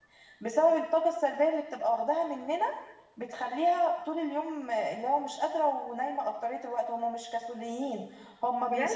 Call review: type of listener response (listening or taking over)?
listening